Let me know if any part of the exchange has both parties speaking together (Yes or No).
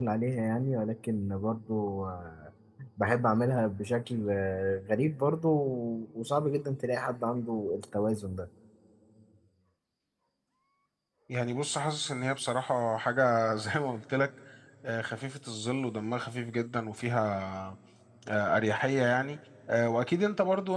No